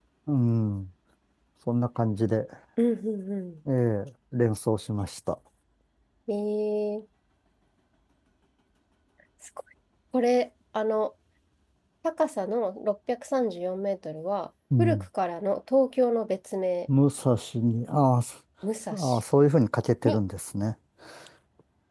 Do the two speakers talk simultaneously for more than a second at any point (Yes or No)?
No